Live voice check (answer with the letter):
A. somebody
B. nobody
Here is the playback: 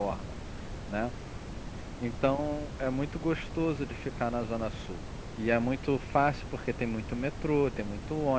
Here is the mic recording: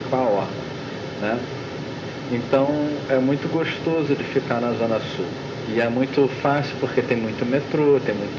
B